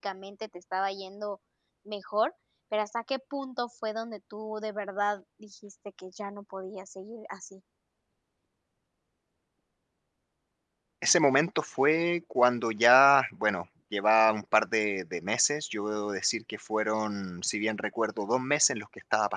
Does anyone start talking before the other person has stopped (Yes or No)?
No